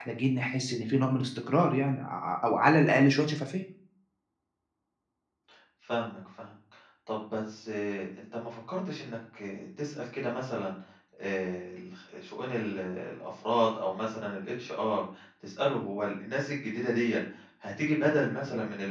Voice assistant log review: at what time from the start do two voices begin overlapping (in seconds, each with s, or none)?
none